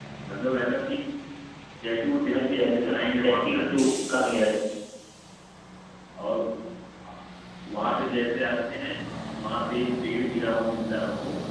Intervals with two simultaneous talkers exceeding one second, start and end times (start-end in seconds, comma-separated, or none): 2.4-3.9